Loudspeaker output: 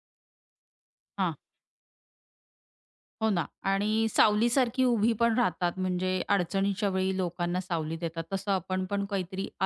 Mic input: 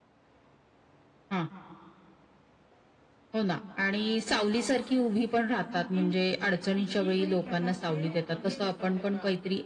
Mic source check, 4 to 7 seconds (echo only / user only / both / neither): both